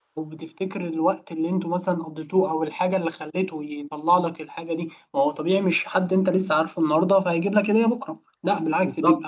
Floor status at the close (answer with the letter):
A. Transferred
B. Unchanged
A